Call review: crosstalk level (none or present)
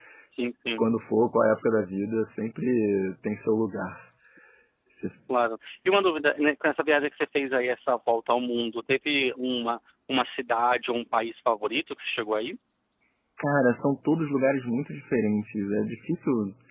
none